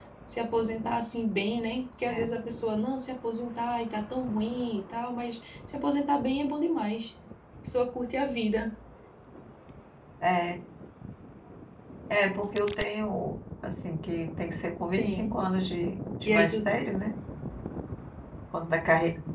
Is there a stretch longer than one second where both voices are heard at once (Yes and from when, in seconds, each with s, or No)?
No